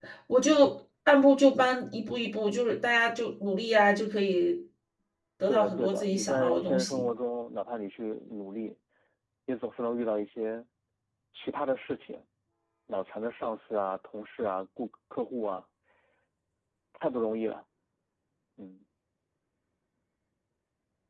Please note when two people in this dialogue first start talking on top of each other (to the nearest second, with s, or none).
5 s